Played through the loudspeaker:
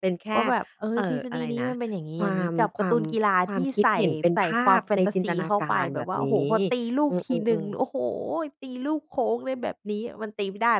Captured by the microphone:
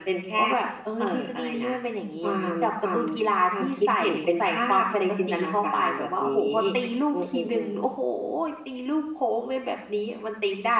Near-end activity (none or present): none